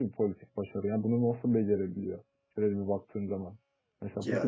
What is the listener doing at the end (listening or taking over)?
listening